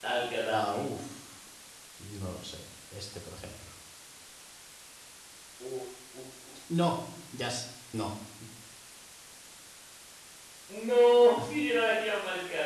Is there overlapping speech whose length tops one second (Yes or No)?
No